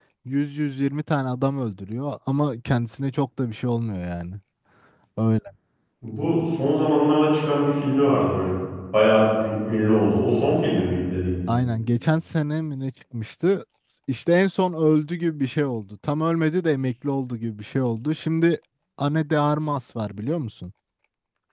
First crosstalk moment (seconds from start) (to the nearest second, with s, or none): none